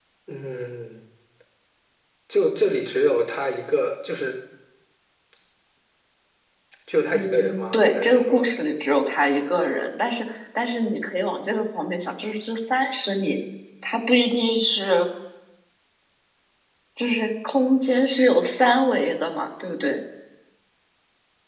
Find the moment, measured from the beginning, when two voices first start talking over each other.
7.1 s

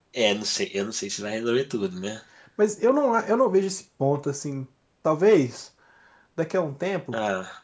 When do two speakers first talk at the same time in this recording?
none

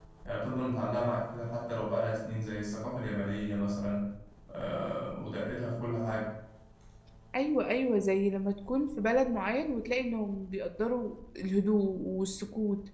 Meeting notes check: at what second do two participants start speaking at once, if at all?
none

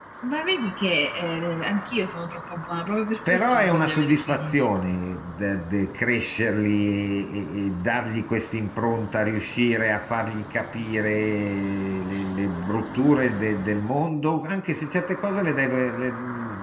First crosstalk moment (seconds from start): 3.3 s

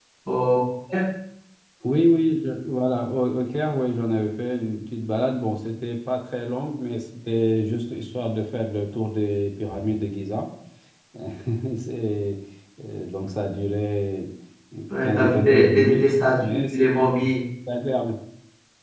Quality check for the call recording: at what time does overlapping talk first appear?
14.9 s

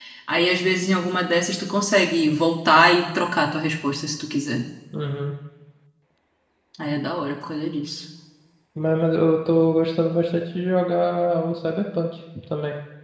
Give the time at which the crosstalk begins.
none

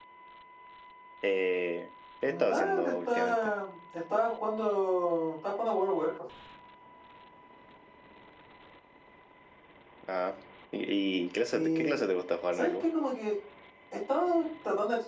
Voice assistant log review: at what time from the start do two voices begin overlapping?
2.3 s

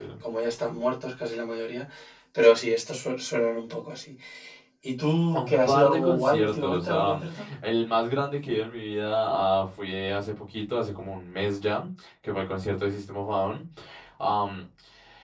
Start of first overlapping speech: 5.3 s

